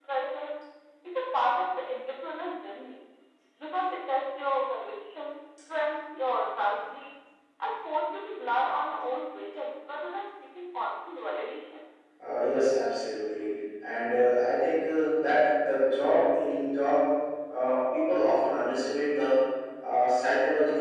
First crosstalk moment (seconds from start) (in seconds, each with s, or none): none